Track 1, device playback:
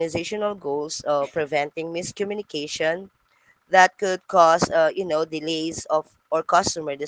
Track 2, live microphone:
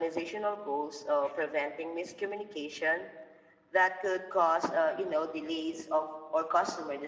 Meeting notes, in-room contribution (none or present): none